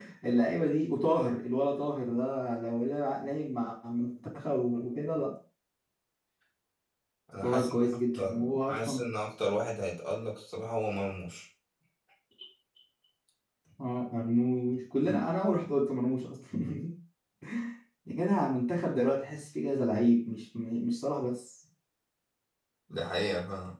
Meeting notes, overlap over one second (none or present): present